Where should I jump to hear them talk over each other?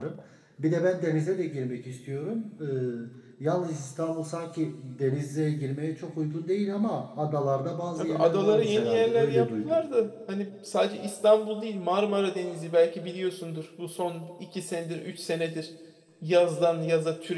8.0 s

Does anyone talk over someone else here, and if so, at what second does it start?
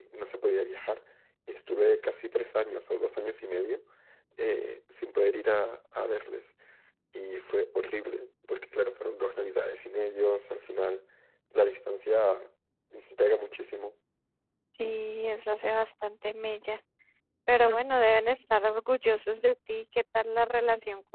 none

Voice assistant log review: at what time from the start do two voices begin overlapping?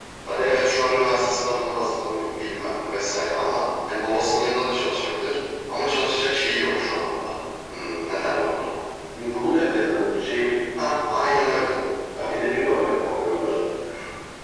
none

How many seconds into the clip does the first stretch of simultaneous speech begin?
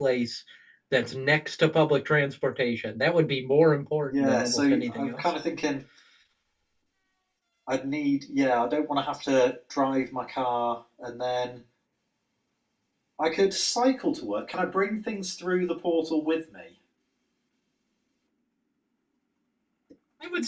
4.0 s

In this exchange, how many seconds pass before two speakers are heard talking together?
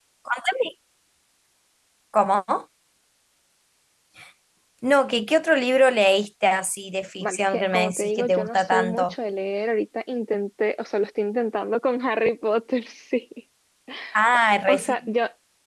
7.2 s

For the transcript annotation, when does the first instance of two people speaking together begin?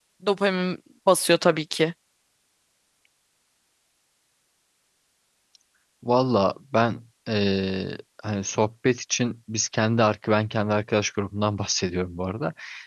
none

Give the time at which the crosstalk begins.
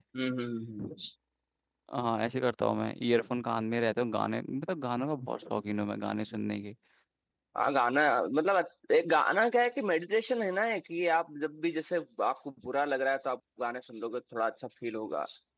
none

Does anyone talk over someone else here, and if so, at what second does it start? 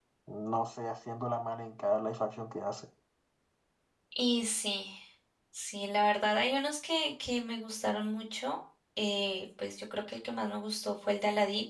none

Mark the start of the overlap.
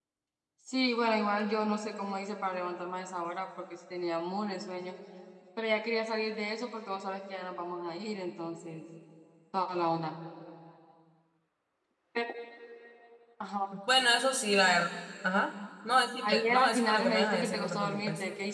16.2 s

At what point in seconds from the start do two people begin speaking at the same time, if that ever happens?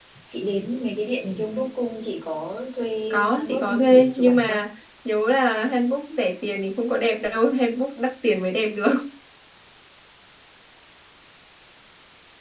3.1 s

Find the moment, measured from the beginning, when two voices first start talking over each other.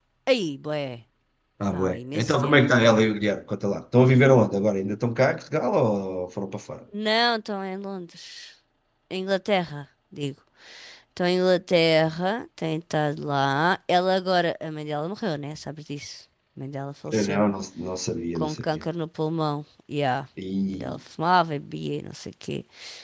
1.7 s

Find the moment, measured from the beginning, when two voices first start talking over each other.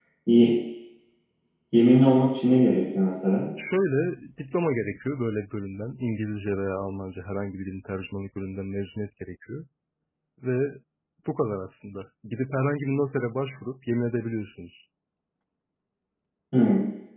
none

